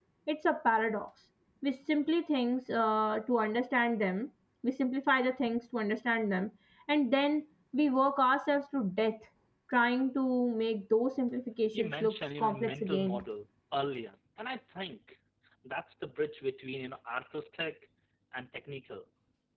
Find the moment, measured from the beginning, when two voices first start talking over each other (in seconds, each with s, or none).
11.7 s